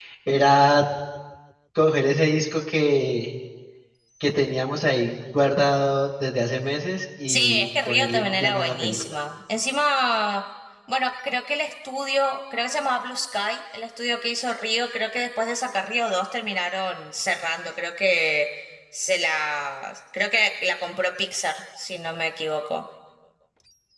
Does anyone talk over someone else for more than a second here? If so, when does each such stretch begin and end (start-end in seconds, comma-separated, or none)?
7.3-9.2